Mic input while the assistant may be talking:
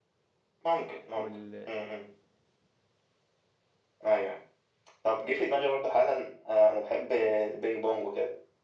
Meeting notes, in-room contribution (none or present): present